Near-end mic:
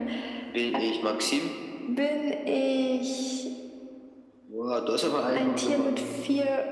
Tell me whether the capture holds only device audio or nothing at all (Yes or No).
No